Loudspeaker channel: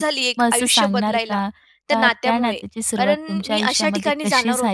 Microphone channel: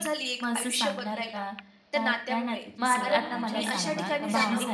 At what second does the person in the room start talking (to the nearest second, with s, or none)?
3 s